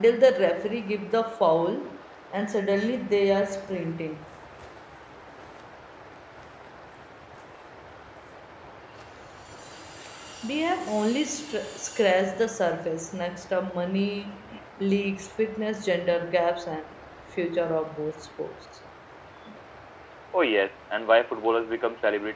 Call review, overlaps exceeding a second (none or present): none